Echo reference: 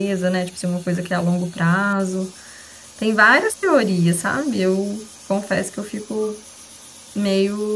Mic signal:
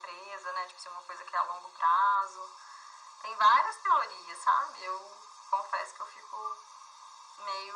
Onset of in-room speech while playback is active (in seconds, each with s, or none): none